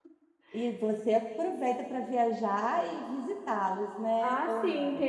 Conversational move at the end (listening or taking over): taking over